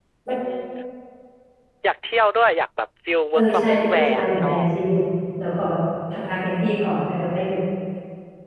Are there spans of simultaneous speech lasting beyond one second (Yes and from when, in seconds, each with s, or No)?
Yes, from 3.3 s